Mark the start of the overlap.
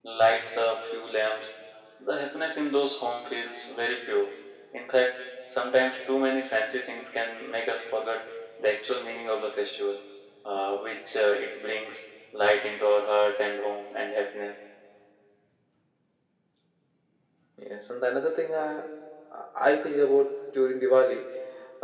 none

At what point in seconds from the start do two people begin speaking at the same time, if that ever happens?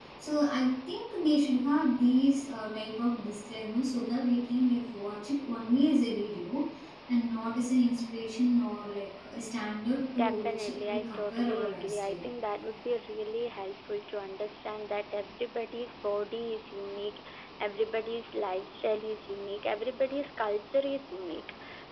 10.2 s

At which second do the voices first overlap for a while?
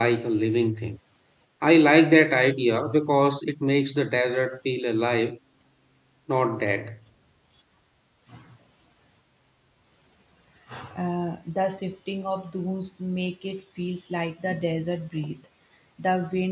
none

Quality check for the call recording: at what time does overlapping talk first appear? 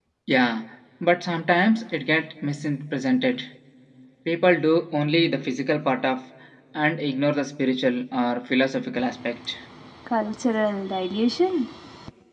none

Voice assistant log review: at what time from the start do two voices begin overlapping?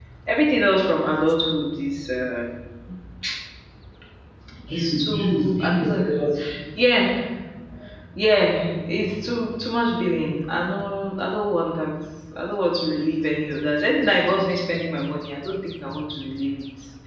4.7 s

